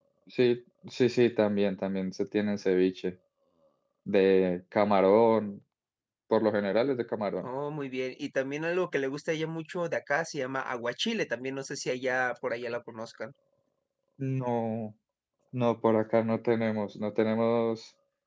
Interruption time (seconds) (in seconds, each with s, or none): none